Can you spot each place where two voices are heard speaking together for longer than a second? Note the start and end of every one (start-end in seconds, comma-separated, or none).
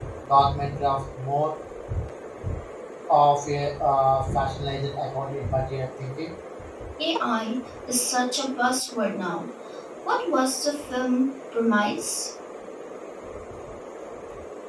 none